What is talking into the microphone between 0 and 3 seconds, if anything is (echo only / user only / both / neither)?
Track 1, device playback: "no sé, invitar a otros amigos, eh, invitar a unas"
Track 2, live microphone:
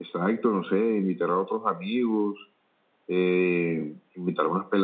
echo only